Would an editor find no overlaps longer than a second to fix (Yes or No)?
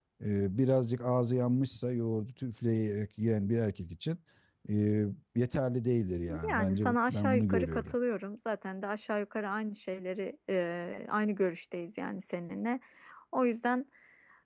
No